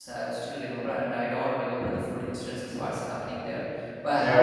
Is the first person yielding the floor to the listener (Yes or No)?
No